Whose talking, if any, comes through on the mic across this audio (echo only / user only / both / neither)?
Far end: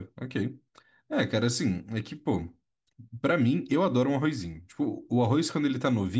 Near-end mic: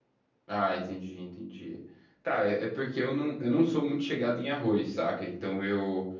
user only